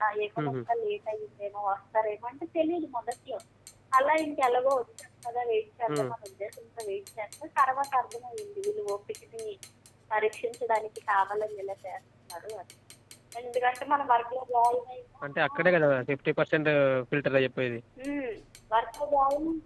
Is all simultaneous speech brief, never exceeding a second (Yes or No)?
Yes